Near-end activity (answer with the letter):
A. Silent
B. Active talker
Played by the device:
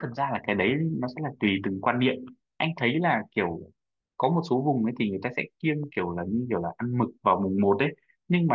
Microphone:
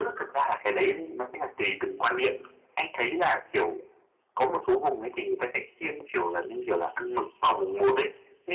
A